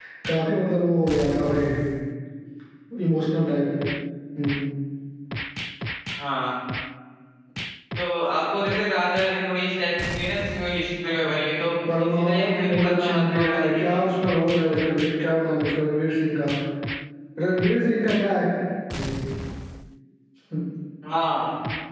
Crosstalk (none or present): present